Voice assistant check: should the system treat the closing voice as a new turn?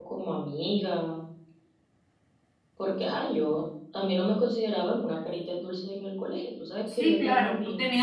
Yes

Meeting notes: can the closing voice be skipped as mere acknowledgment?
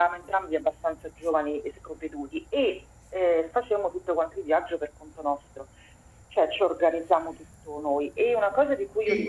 Yes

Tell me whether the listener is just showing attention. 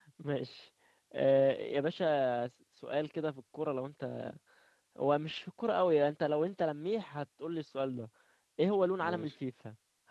Yes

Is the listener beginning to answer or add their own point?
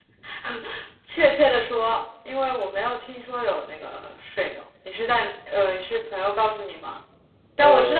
No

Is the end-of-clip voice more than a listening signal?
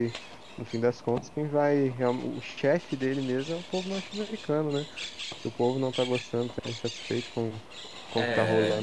No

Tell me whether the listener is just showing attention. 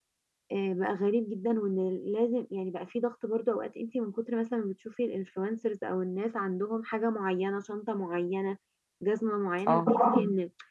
Yes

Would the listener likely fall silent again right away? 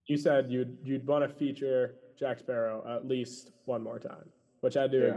Yes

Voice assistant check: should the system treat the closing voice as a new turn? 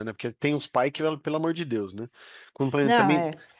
No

